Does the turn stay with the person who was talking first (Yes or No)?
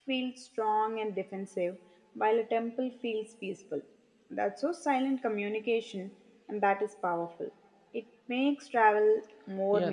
No